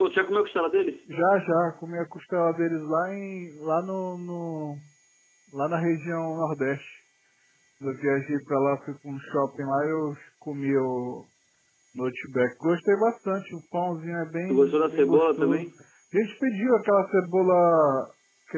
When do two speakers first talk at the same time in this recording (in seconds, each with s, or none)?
14.5 s